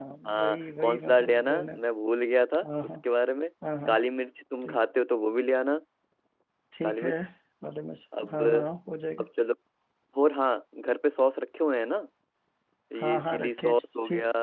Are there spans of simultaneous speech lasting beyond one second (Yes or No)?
Yes